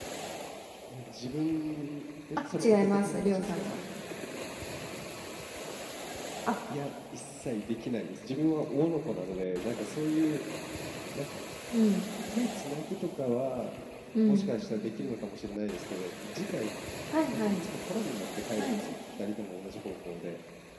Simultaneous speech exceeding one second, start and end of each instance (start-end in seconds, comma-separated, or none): 2.6-3.8